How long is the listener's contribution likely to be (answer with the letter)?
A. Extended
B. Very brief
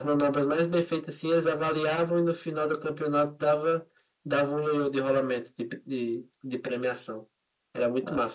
A